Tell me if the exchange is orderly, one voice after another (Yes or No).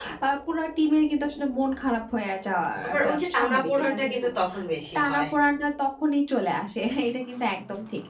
No